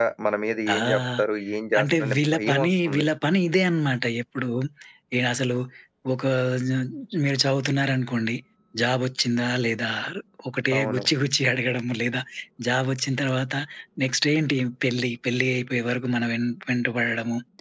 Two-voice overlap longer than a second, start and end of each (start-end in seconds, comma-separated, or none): 1.8-3.1